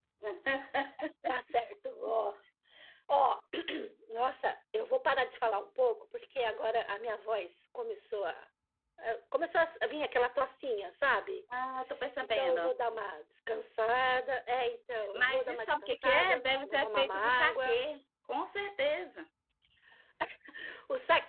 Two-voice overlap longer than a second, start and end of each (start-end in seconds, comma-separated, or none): 15.1-17.8